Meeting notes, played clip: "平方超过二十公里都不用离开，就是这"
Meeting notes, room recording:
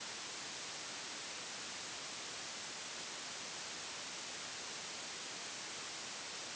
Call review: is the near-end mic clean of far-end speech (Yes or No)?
Yes